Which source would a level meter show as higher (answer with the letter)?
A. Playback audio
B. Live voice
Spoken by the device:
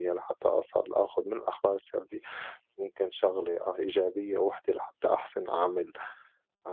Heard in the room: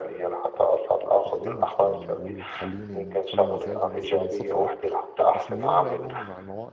A